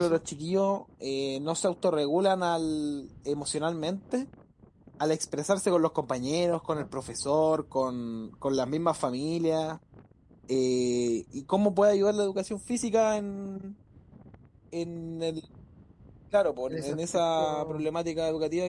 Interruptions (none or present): present